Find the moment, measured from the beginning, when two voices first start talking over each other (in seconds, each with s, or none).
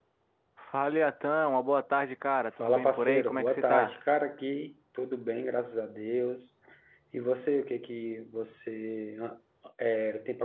2.6 s